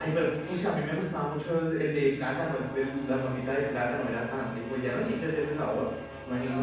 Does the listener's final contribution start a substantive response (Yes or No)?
Yes